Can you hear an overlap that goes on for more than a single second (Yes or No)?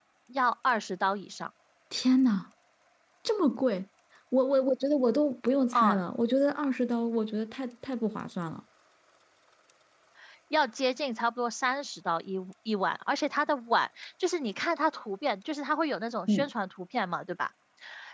No